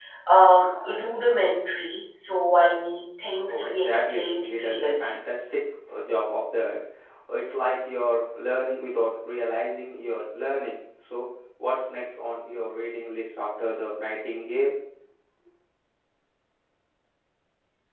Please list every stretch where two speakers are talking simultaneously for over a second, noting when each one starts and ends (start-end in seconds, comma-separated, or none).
3.5-5.1